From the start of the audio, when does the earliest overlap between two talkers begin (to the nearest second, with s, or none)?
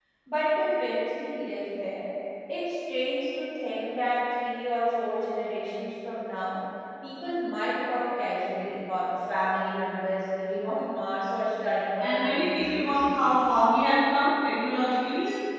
12 s